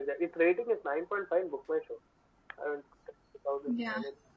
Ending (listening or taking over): listening